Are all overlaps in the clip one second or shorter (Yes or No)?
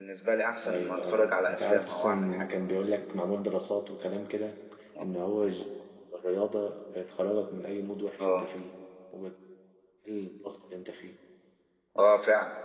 No